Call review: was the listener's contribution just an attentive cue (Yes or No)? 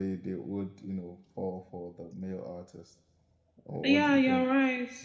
No